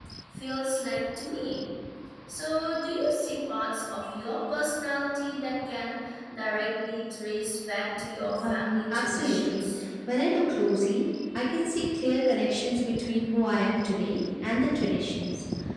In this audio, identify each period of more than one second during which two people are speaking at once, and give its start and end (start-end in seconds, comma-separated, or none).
8.4-9.7